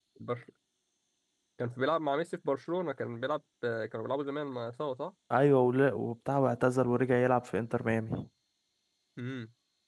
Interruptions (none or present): none